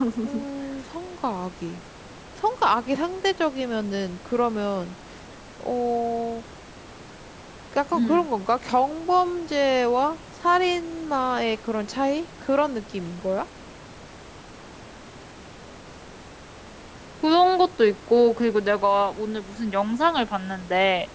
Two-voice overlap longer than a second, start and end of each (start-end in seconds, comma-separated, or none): none